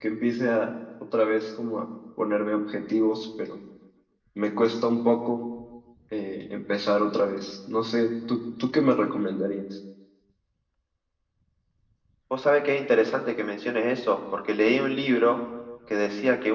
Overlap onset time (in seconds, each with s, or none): none